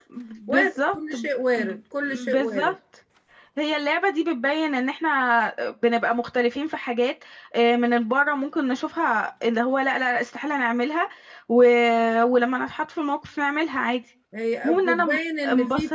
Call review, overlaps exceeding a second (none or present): present